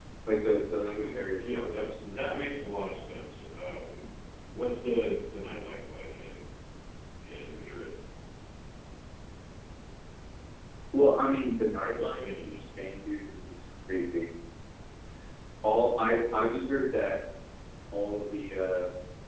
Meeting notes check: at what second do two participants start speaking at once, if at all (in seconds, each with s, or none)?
1.0 s